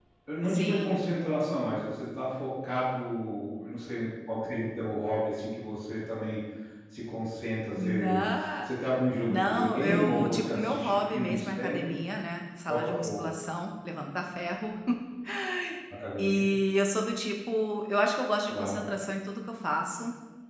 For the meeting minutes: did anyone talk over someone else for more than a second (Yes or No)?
Yes